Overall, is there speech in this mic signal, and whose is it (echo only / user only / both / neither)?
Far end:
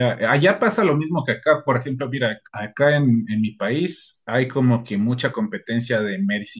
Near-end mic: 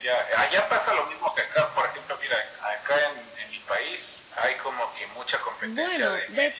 both